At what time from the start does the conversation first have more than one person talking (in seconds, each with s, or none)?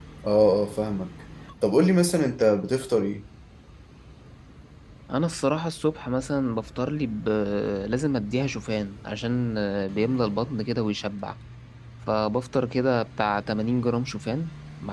none